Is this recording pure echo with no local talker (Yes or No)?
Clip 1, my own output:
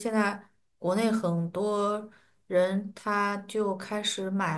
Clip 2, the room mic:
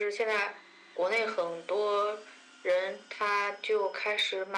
Yes